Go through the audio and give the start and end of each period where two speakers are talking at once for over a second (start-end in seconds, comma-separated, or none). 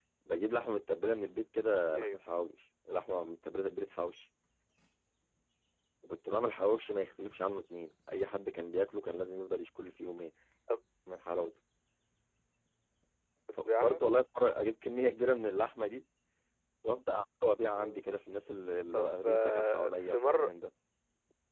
18.9-20.5